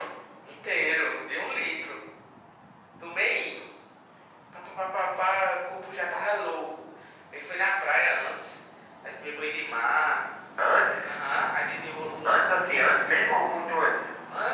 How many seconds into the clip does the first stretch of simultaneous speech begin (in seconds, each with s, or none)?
none